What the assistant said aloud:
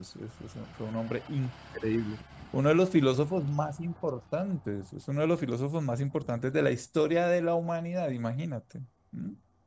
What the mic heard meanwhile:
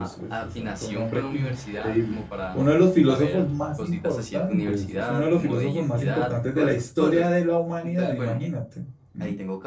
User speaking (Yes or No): Yes